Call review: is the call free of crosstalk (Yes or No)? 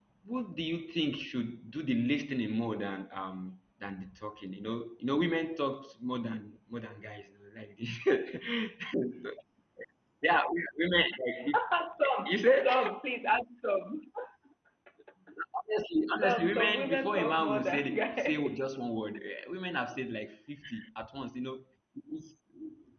No